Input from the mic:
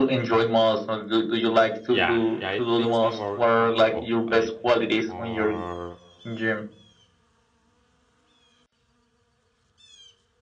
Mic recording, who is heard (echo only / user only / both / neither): both